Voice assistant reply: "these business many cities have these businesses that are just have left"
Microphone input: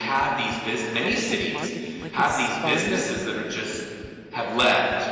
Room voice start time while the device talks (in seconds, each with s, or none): 1.0 s